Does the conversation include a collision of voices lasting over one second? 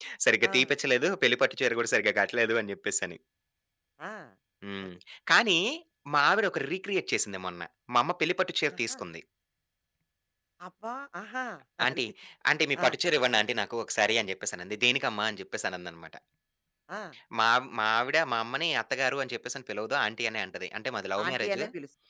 No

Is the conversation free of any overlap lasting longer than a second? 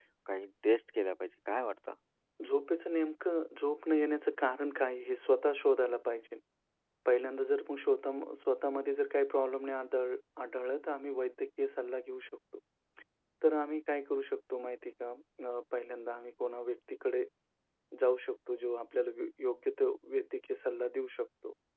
Yes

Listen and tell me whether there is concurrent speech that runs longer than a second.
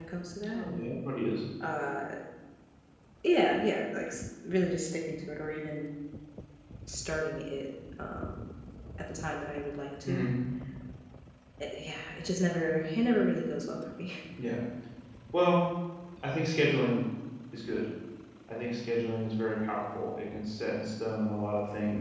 No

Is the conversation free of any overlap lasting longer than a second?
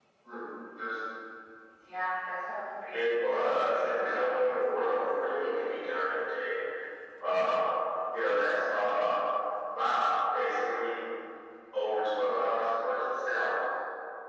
No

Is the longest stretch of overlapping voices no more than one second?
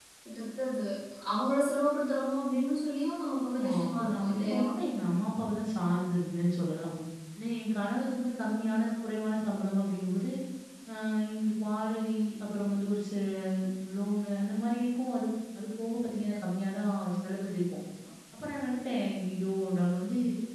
No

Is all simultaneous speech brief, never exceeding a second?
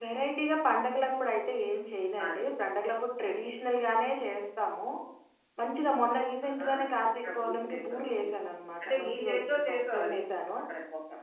No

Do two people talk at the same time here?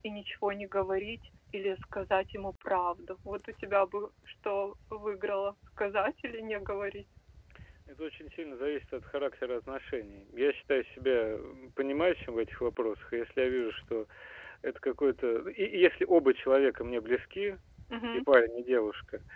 No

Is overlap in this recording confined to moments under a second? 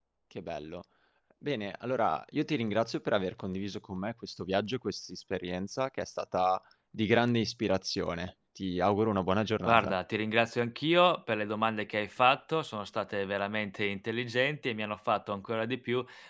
Yes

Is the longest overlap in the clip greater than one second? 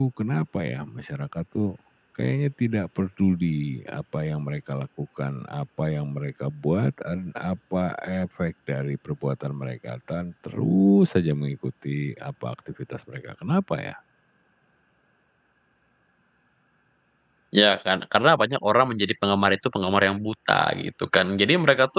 No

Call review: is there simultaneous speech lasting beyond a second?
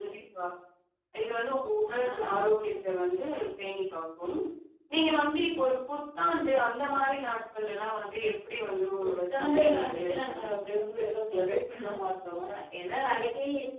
Yes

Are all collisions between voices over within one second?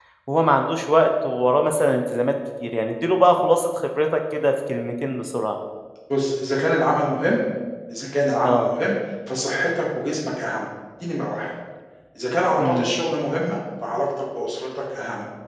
Yes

